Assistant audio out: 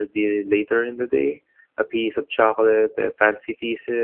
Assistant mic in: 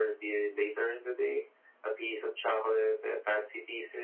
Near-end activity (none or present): none